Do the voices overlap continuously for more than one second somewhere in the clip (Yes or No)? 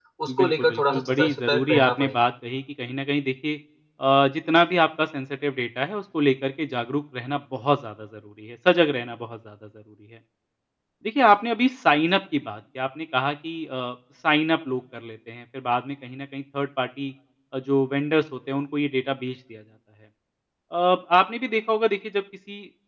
Yes